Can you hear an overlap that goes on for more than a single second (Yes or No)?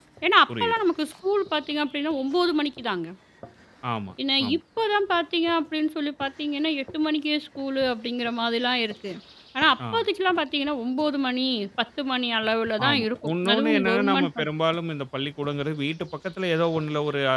Yes